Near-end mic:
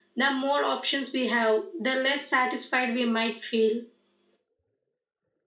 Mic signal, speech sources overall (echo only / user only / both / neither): echo only